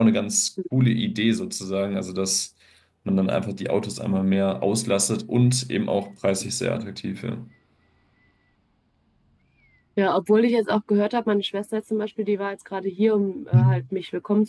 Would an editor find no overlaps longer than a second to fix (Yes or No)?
Yes